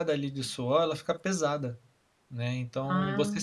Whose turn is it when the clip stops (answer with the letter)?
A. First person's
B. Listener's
A